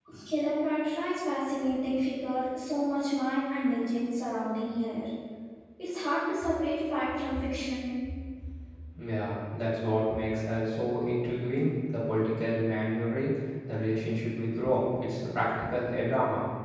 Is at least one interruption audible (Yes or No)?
No